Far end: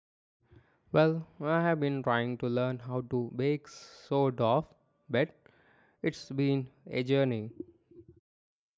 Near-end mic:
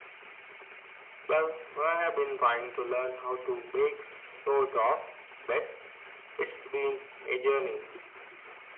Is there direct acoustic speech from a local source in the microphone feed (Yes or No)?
No